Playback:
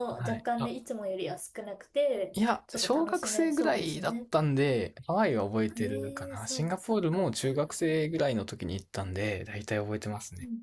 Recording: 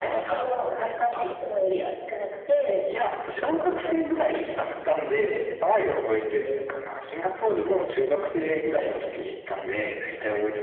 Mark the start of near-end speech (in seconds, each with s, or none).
none